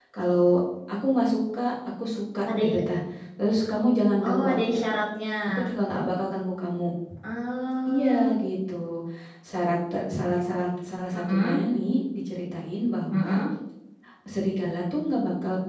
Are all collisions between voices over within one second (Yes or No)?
Yes